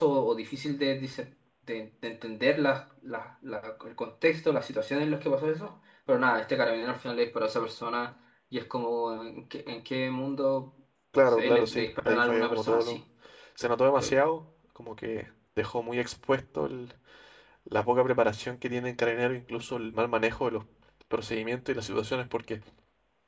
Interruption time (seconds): 11.3 s

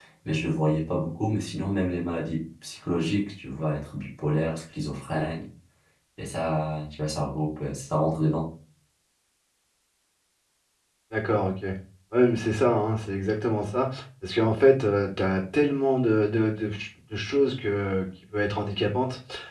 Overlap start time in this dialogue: none

